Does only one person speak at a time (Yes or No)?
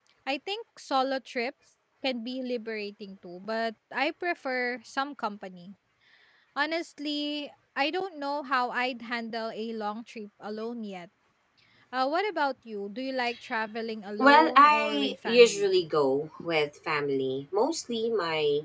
No